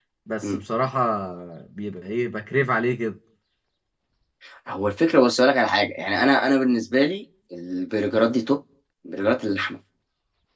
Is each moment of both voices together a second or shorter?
Yes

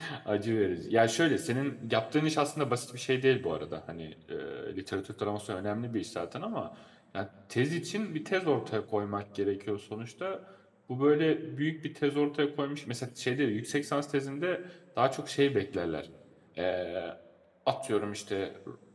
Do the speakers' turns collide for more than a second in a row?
No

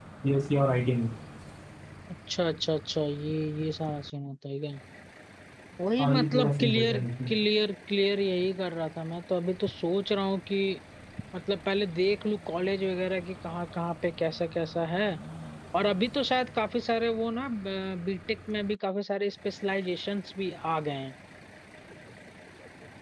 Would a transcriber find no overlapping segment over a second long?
No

